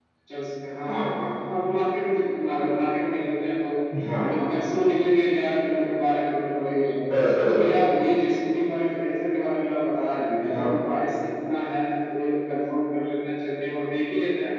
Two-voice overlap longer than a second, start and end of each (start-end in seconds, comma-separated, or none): none